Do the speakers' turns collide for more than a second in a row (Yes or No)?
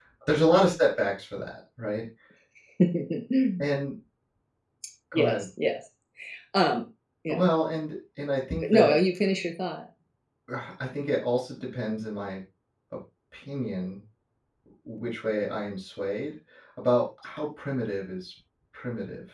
No